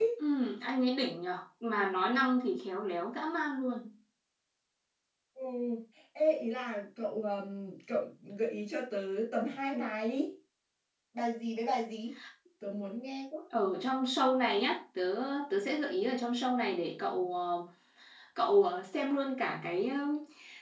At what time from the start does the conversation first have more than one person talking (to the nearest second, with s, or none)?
none